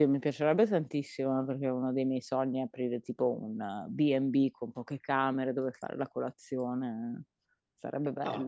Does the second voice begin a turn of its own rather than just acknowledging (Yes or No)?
Yes